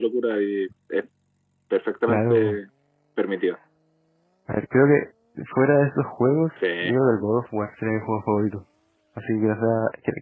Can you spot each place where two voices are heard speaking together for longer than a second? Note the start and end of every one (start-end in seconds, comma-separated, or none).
none